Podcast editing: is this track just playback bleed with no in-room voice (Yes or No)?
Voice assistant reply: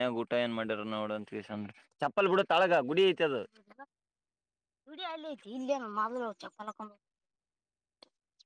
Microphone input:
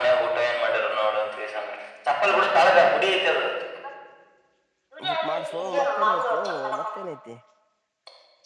No